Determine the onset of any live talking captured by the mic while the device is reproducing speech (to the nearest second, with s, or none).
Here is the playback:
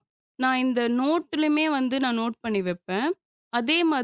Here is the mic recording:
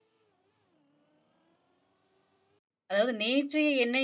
3 s